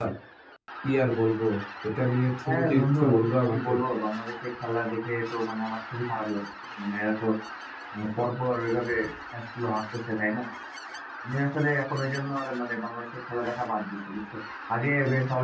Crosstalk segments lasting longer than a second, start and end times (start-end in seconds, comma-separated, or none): 2.5-3.7